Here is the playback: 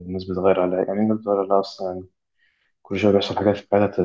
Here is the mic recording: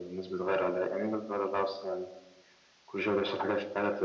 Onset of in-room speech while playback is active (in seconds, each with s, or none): none